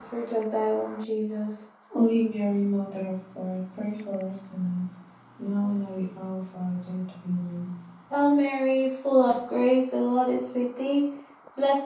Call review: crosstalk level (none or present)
none